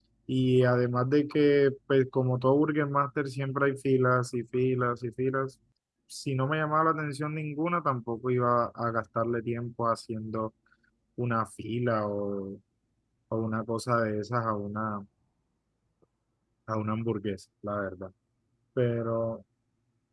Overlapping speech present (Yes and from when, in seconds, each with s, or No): No